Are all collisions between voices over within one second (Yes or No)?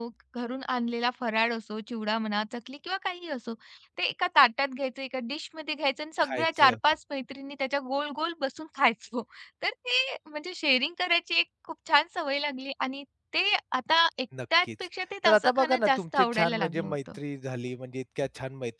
No